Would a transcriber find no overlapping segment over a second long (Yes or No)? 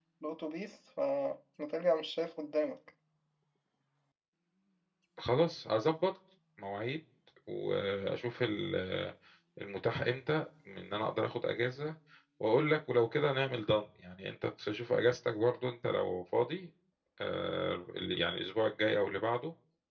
Yes